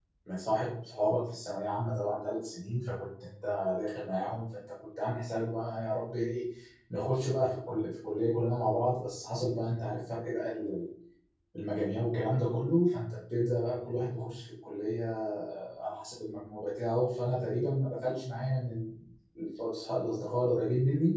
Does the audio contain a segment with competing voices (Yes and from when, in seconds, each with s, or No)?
No